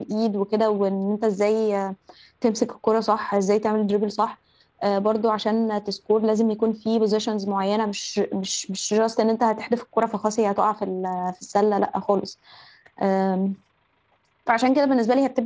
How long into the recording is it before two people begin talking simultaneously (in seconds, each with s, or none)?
none